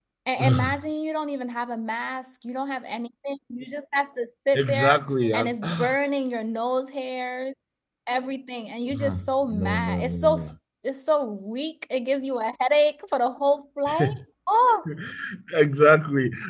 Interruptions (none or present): present